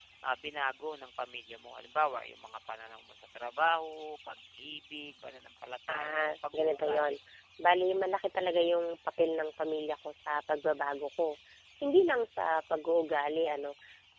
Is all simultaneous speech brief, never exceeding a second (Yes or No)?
No